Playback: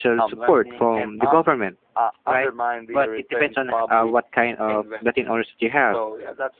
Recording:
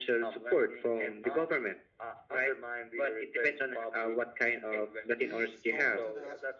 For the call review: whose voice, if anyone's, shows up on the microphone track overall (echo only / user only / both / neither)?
both